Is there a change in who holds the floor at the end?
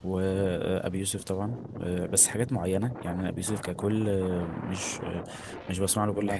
Yes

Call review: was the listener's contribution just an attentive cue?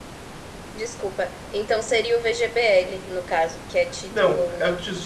No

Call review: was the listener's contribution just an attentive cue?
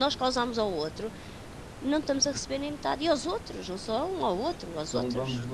No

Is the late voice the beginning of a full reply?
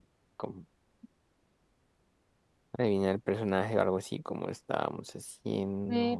Yes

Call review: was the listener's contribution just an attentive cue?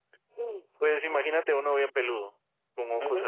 No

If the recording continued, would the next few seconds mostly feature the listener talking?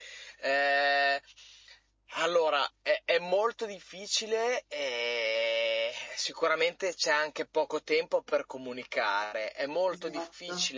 No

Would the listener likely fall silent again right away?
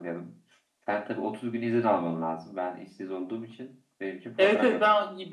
No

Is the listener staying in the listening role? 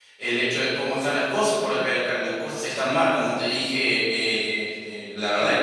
Yes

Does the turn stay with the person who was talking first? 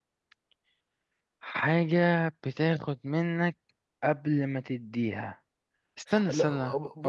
No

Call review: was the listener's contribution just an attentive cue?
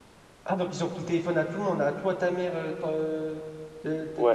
No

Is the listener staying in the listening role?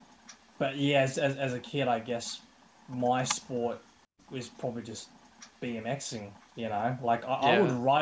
No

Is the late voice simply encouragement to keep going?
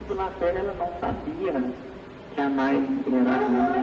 No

